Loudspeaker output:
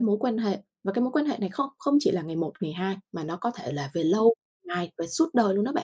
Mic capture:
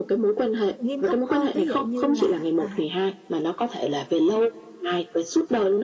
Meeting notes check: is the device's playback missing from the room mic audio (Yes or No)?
No